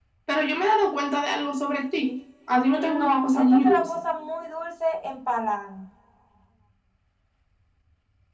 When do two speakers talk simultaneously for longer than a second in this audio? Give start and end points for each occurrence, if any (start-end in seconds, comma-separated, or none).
2.6-4.0